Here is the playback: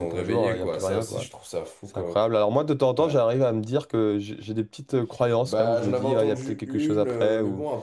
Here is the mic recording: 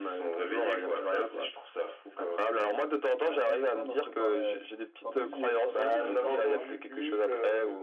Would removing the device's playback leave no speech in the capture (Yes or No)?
No